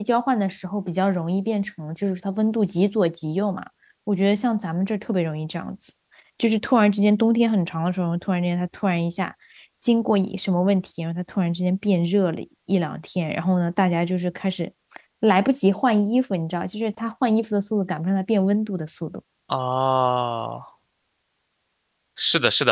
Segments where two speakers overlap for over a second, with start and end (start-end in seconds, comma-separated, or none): none